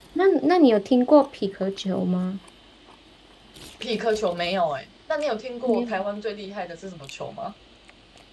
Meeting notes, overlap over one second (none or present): none